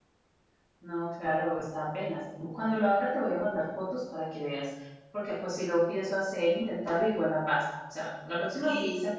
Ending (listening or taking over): listening